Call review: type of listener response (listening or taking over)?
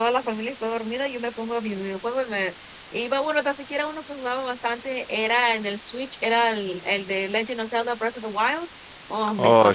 listening